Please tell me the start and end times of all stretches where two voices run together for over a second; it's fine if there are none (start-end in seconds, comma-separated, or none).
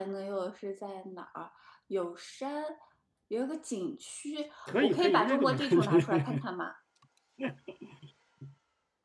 4.7-6.5